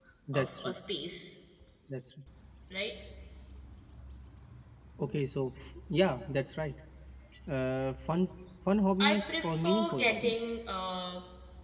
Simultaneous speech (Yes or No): Yes